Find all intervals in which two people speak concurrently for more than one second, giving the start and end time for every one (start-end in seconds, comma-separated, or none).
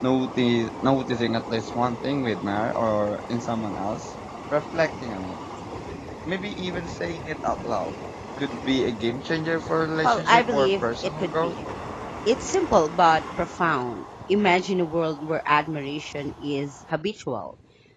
10.0-11.5